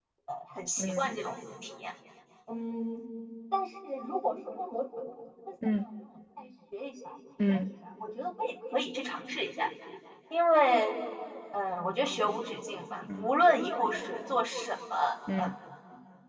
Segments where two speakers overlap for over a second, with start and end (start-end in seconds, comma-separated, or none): none